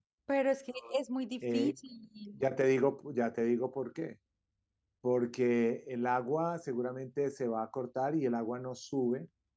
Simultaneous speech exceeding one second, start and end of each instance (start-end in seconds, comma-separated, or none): none